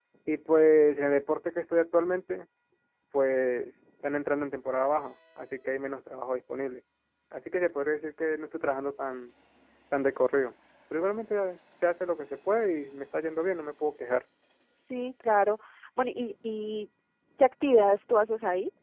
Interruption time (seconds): none

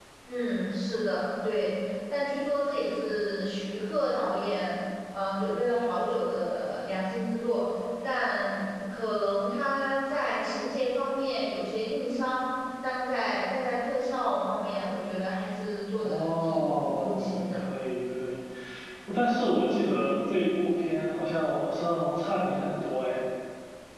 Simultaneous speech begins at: 16.0 s

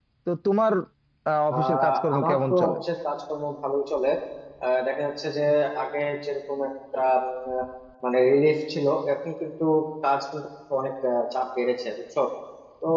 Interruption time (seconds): 1.5 s

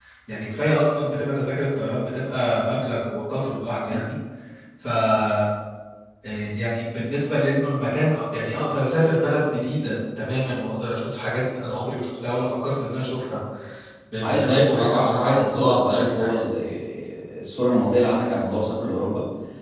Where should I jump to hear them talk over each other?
14.2 s

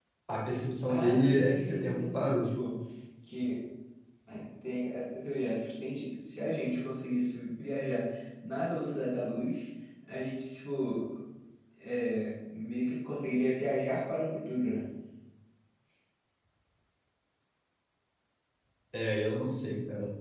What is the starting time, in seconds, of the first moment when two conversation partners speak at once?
0.8 s

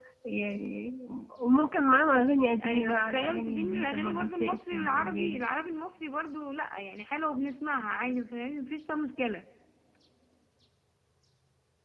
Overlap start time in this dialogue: 2.6 s

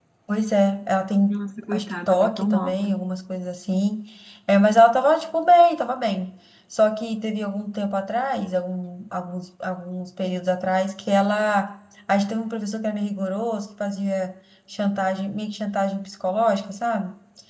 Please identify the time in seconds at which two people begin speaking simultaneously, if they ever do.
1.7 s

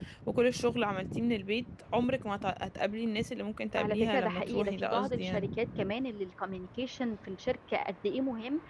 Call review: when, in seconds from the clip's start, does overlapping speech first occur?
3.8 s

